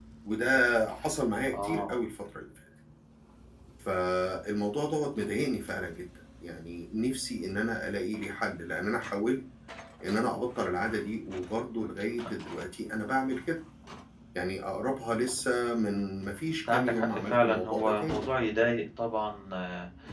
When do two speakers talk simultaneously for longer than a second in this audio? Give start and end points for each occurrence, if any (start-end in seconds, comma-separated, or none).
16.4-18.3